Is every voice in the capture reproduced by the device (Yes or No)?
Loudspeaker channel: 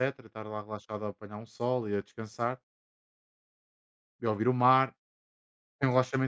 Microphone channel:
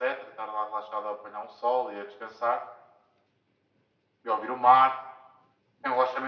Yes